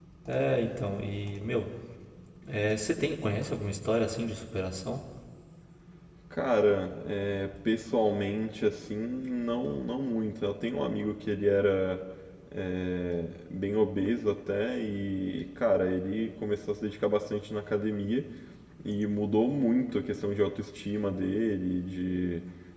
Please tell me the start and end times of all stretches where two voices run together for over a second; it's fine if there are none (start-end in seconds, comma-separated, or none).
none